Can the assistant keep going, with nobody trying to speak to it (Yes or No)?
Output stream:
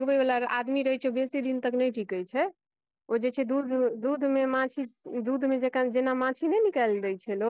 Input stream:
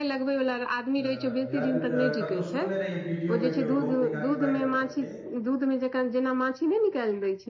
No